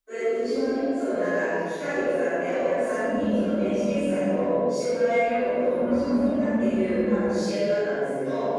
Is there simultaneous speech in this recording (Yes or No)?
Yes